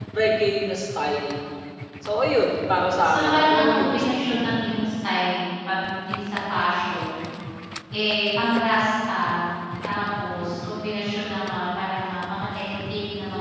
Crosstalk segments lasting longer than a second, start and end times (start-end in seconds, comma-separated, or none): 3.0-4.4